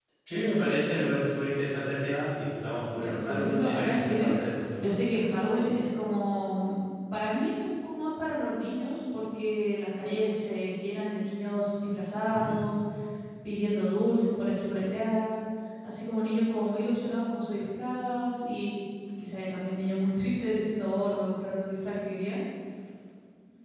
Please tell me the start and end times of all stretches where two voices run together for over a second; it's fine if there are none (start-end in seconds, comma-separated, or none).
2.9-4.3